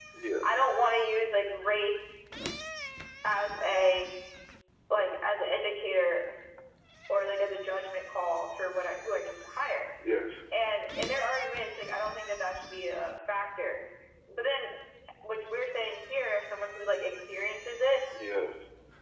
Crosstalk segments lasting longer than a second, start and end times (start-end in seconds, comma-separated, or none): none